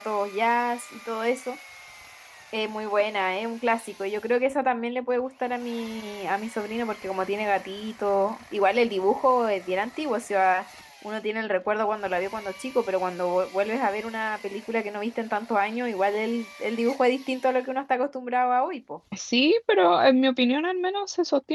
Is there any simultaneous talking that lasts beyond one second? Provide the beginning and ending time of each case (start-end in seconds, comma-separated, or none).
none